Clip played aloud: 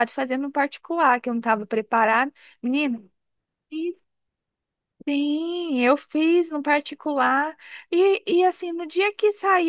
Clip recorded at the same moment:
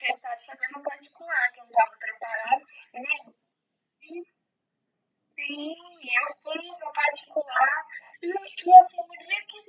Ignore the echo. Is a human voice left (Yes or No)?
No